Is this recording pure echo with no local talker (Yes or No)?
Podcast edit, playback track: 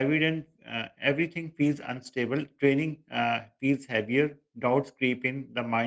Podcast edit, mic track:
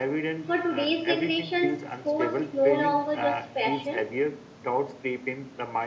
No